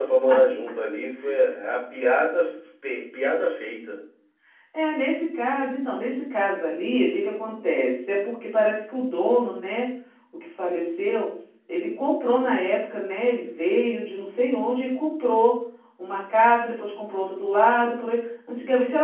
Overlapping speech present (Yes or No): No